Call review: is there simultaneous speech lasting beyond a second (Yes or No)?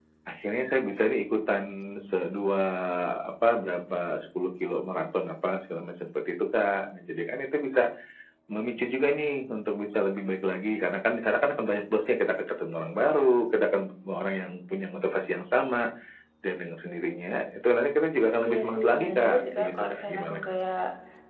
Yes